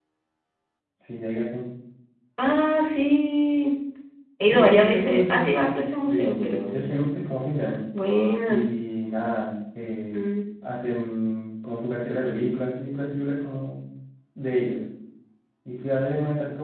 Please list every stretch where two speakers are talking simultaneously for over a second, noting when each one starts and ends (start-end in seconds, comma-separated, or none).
4.5-6.8